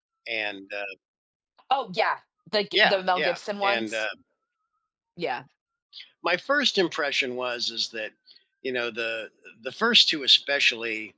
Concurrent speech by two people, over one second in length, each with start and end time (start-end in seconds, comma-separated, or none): 2.7-4.0